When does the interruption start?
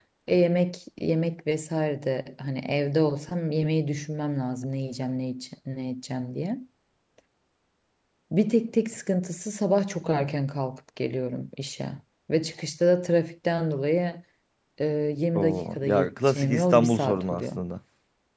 15.3 s

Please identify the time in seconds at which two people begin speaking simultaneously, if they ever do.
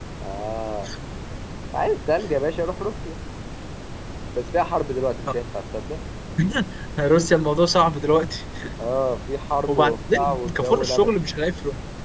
9.7 s

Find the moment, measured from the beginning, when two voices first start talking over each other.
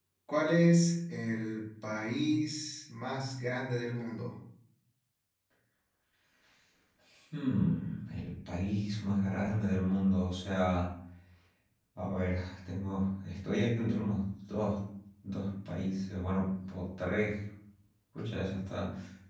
none

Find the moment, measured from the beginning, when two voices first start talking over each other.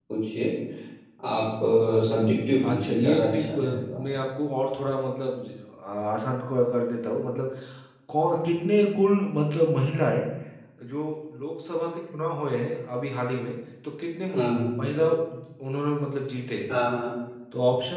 2.6 s

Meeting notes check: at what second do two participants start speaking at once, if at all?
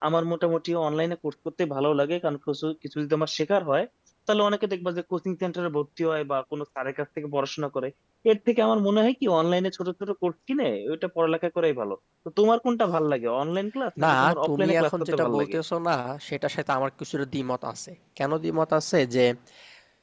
14.0 s

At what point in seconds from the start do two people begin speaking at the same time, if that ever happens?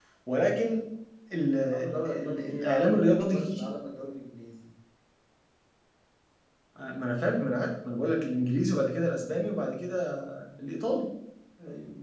1.6 s

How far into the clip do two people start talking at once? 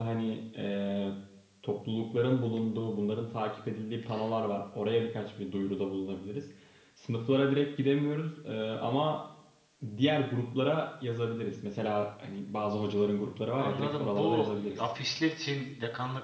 13.6 s

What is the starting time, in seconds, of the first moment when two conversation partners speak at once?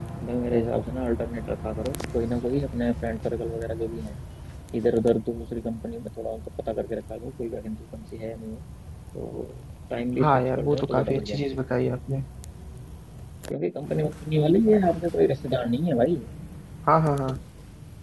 10.2 s

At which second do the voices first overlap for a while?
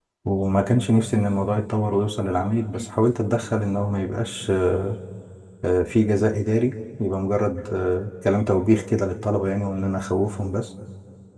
none

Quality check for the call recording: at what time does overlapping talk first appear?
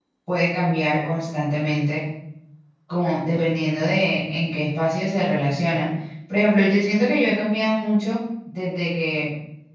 none

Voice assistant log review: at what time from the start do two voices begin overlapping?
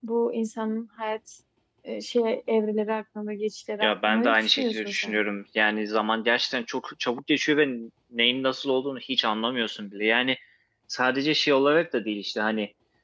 3.8 s

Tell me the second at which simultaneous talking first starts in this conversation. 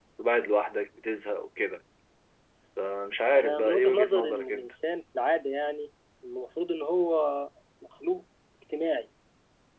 3.4 s

